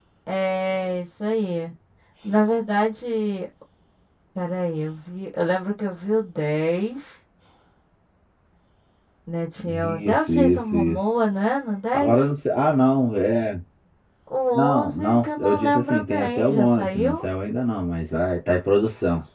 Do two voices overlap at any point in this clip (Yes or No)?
Yes